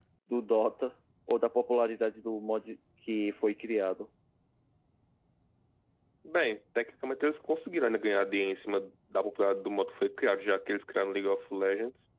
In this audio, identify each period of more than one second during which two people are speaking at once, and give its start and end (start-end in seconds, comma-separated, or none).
none